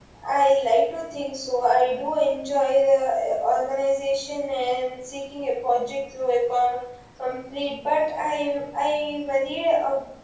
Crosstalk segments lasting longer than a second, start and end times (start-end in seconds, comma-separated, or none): none